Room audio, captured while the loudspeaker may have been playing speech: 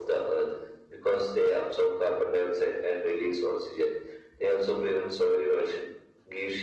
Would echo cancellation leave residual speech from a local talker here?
No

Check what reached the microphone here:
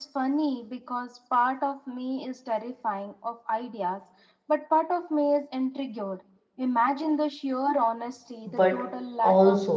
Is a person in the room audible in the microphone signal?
Yes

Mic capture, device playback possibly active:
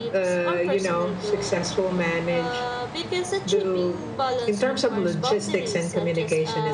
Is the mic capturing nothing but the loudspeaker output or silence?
Yes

